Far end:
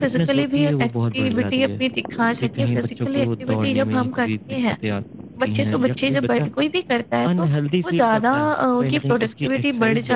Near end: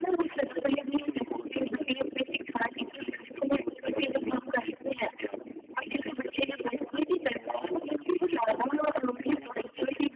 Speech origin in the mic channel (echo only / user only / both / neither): both